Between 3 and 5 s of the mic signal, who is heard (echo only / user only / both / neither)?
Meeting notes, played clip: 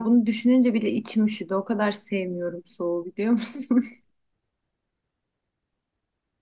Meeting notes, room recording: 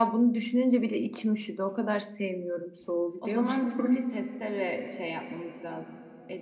both